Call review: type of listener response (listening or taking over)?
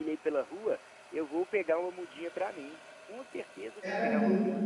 taking over